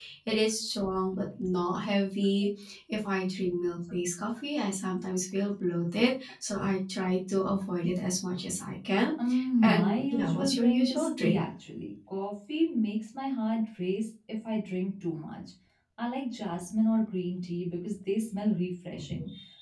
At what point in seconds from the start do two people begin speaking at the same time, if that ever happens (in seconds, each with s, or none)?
9.6 s